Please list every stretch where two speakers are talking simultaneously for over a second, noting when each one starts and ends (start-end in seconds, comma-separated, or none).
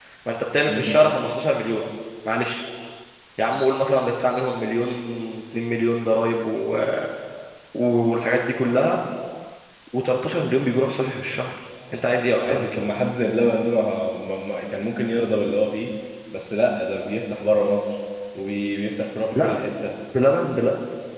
none